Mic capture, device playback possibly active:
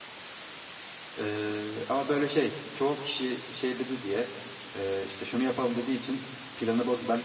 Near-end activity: present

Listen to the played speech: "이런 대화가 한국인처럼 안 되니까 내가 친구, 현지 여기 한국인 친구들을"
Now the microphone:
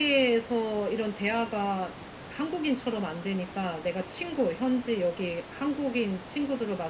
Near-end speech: none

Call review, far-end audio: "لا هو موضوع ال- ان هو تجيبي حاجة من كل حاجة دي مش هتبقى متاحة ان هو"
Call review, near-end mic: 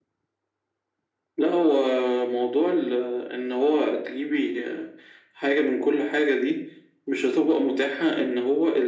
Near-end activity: none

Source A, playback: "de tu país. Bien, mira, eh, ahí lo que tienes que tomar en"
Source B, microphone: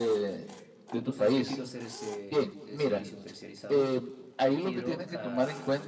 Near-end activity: present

